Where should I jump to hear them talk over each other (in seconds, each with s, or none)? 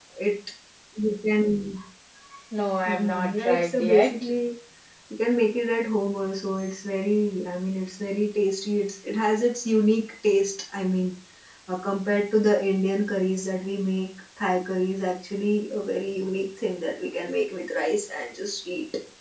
2.9 s